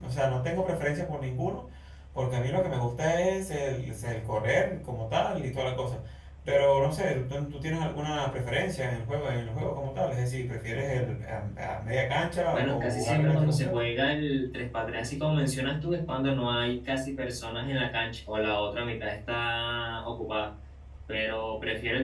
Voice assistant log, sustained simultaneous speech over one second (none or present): present